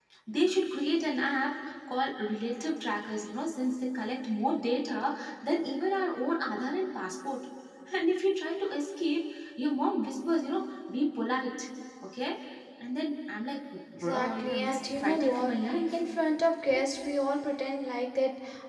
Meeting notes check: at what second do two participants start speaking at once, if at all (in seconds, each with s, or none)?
14.0 s